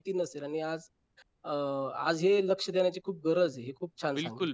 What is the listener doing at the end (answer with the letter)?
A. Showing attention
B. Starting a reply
B